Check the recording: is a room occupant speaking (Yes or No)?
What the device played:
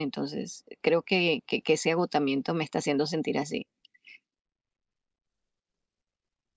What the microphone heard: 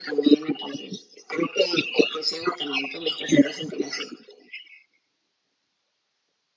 No